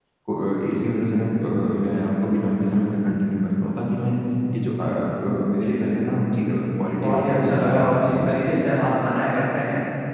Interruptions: present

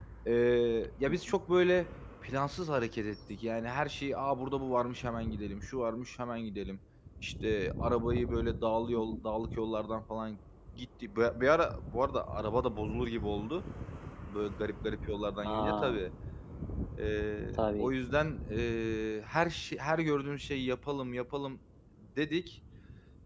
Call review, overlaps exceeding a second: none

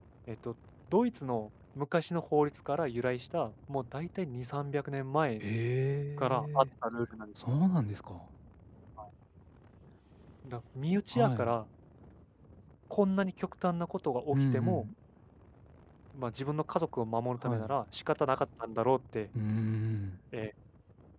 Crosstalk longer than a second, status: none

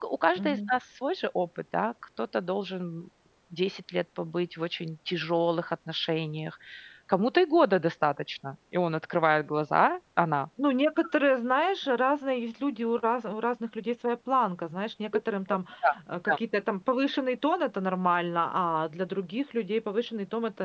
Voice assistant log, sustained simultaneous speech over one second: none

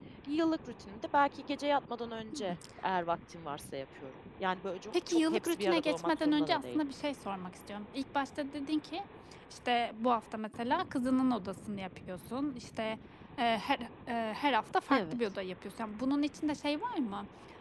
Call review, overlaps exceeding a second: present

